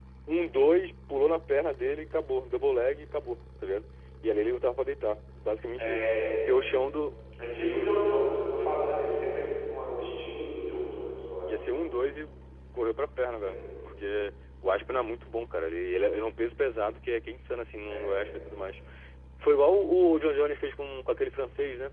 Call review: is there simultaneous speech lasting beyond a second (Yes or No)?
No